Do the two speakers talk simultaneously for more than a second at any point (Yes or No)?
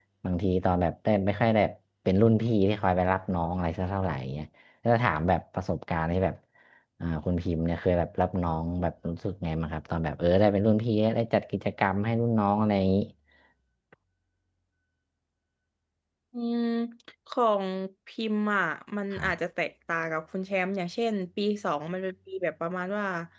No